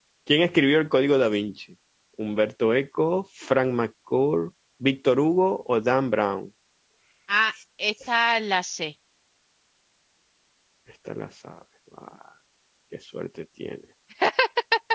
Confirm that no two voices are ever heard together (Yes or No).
Yes